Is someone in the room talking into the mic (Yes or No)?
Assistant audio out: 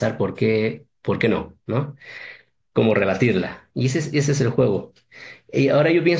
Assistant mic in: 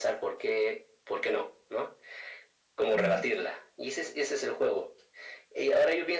Yes